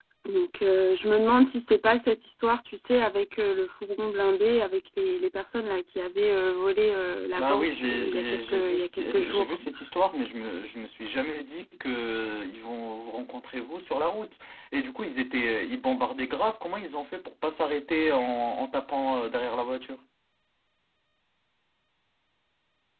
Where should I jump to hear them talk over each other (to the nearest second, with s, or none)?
7 s